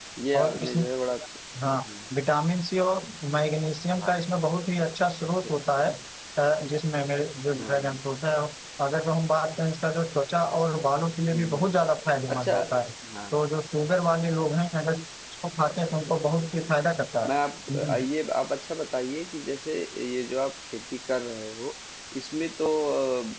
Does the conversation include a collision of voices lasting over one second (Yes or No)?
No